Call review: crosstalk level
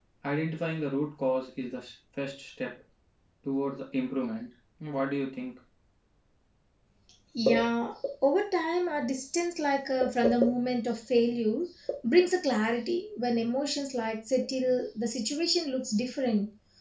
none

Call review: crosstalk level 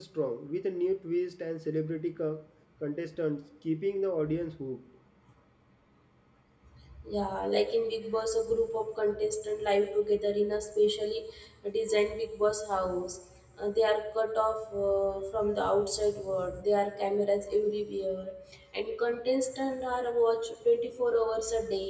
none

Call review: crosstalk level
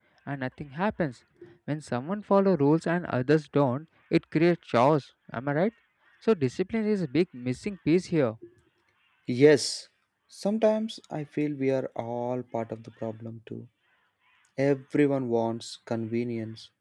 none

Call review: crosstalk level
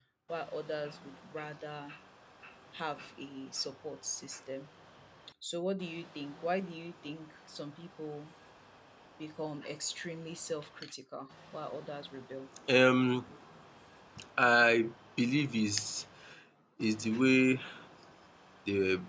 none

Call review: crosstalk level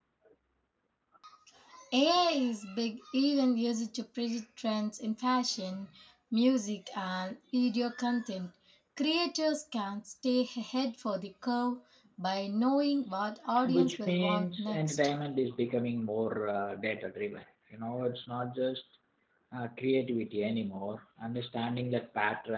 present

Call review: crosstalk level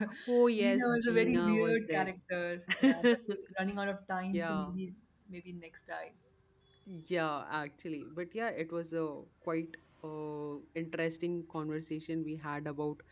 present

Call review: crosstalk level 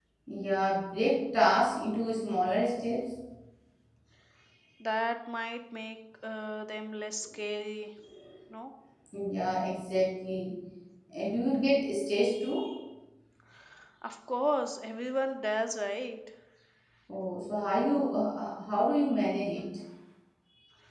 none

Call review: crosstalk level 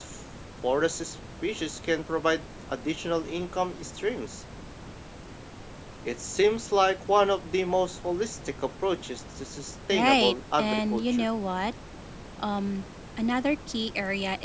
present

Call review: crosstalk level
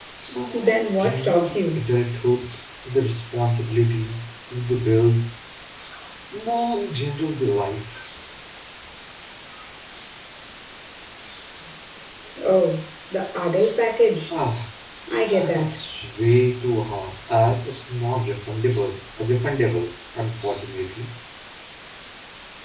present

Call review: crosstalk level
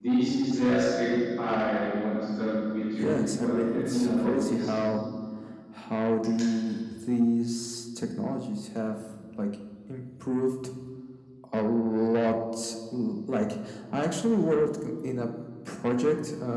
present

